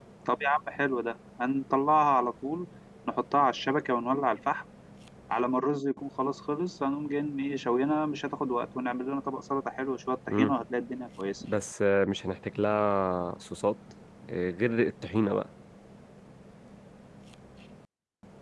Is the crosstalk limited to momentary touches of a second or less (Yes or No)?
Yes